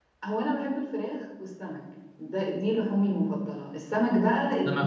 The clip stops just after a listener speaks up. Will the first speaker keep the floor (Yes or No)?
Yes